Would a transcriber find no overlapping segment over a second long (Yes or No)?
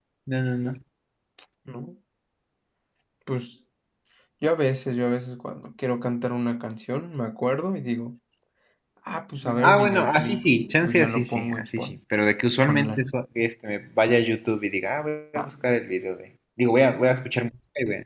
No